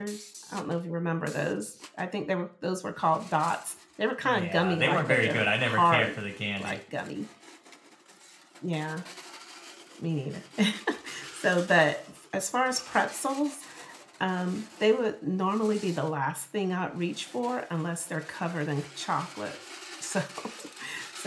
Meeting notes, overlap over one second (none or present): present